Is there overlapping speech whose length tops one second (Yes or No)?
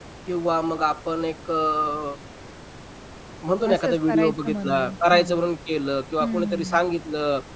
Yes